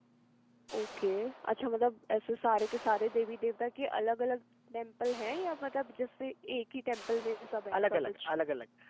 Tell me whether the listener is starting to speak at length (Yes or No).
Yes